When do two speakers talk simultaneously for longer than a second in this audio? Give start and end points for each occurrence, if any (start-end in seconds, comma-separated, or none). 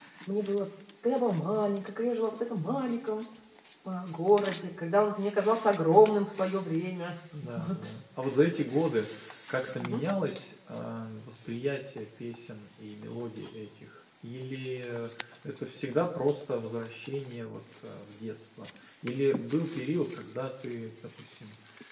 none